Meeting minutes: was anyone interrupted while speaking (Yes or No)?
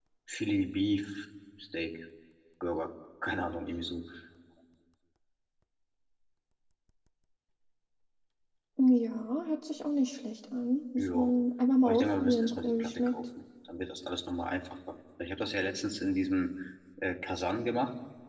Yes